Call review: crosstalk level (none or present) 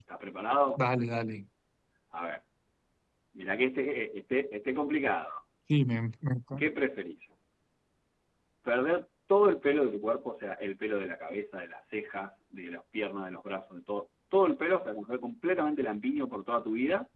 none